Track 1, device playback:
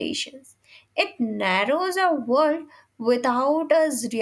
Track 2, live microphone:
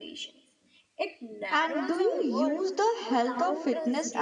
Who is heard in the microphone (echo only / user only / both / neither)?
both